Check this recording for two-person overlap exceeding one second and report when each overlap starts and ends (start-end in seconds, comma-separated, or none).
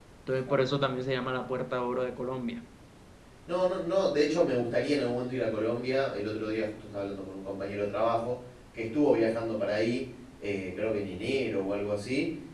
none